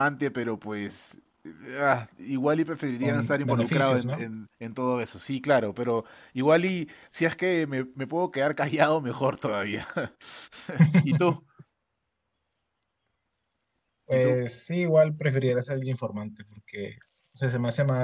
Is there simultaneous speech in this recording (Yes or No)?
Yes